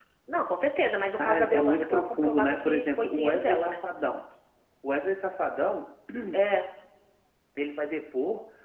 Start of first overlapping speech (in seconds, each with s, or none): 1.2 s